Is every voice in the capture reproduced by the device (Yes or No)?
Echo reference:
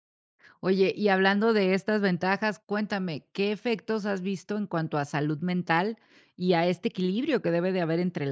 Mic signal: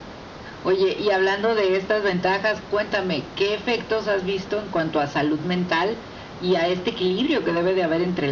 Yes